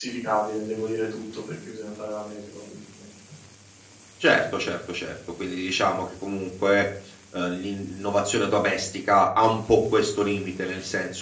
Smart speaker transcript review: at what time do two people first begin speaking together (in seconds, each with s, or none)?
none